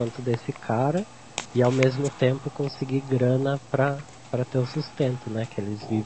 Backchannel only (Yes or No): No